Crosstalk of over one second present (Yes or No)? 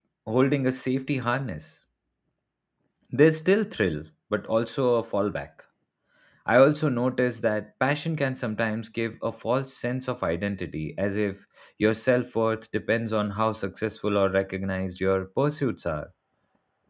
No